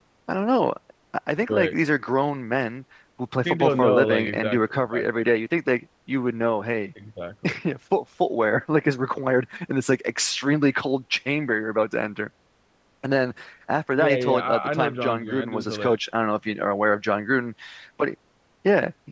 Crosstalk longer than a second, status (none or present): present